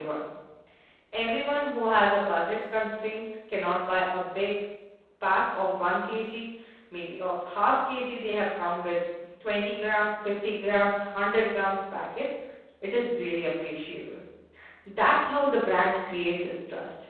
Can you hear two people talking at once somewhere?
No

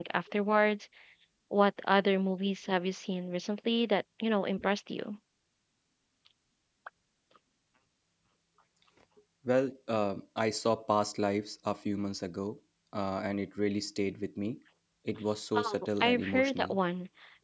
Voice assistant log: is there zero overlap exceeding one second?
No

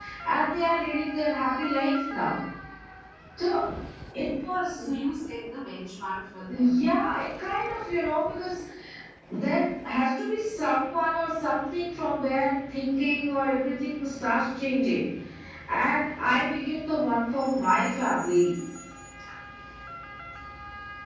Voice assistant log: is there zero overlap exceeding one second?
Yes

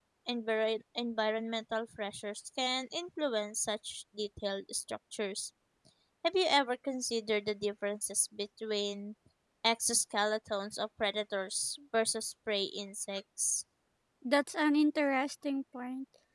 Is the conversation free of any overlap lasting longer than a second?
Yes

